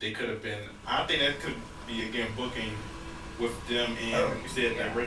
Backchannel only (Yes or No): Yes